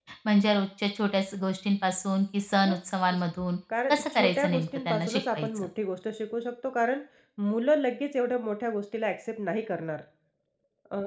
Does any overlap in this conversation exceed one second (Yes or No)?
Yes